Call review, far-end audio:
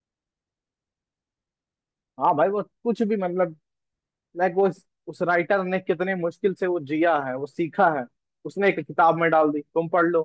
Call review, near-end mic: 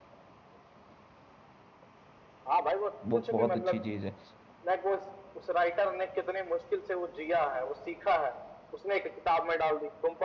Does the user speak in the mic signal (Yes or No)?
Yes